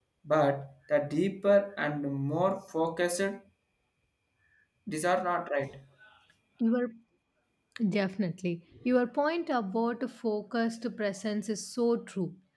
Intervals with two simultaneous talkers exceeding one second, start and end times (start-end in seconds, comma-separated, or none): none